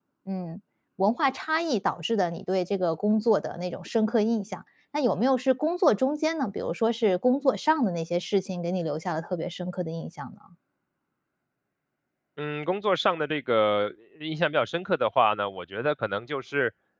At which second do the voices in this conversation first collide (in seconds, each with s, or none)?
none